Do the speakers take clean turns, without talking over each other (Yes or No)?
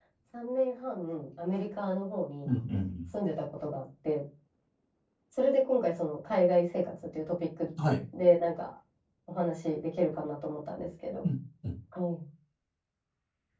Yes